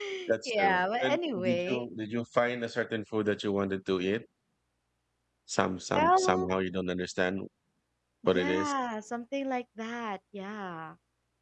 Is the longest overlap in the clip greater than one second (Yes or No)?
Yes